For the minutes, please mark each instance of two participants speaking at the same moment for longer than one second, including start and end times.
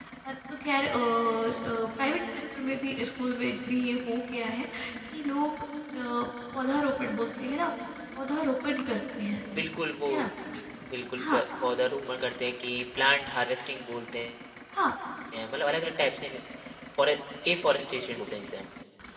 none

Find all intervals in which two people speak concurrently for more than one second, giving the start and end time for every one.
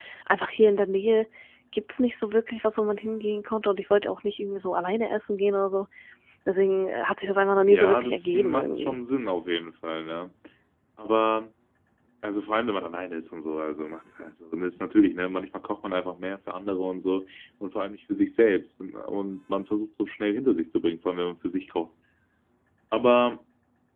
7.7-9.0

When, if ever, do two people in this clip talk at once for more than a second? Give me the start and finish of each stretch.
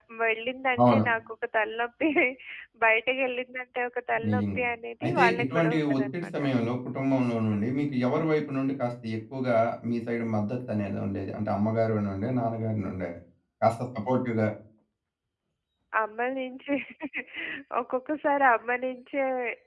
5.0-6.3

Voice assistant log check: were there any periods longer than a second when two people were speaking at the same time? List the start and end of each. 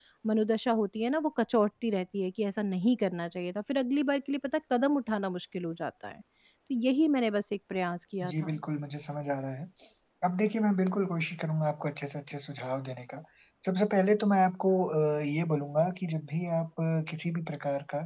none

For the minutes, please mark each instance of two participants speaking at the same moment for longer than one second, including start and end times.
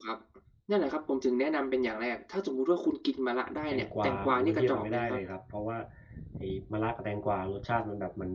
3.7-5.2

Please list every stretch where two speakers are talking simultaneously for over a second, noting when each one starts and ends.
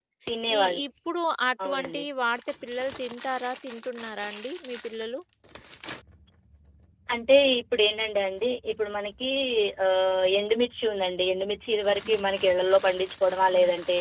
none

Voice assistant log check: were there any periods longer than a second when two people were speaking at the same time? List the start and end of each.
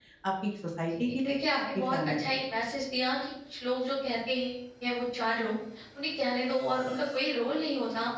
0.9-2.4

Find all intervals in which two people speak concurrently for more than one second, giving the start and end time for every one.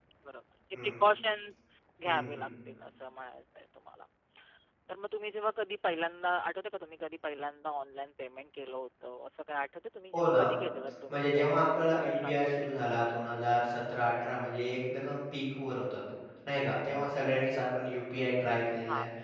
11.1-12.7

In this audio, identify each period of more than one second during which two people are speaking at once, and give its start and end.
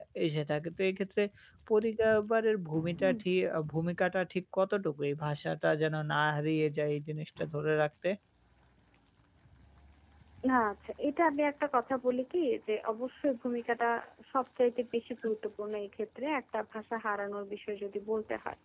none

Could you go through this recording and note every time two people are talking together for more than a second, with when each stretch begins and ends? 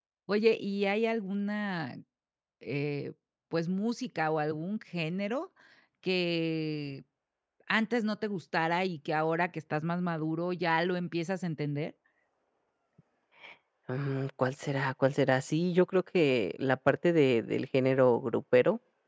none

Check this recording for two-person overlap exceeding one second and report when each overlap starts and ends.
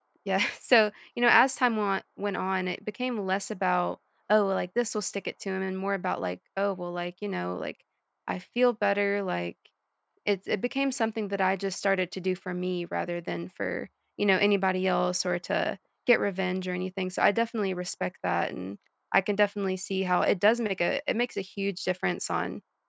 none

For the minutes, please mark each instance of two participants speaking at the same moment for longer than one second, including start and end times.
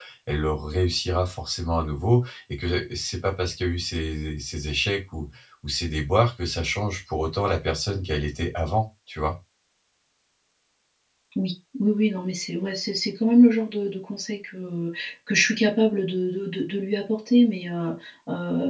none

